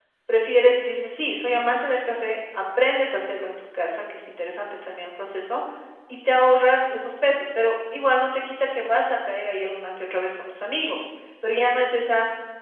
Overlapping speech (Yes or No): No